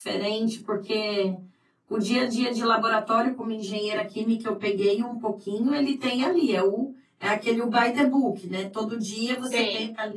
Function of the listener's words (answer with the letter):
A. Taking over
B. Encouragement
B